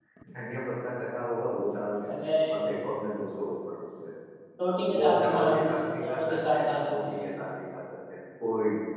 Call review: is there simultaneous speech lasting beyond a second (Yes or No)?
Yes